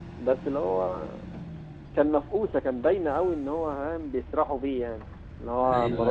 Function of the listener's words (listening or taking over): listening